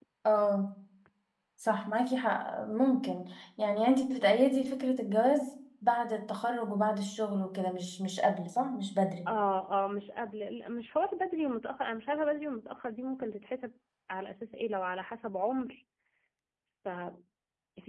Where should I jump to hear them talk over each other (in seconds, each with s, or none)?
none